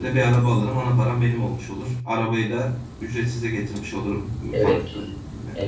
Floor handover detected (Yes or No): Yes